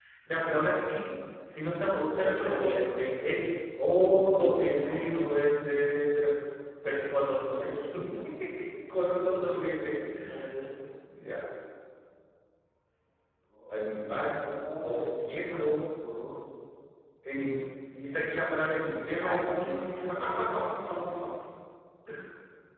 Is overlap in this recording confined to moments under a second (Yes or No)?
No